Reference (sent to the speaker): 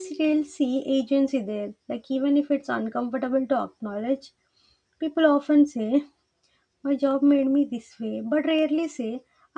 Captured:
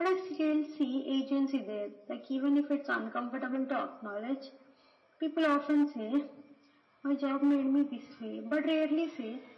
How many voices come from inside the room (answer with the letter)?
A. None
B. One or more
A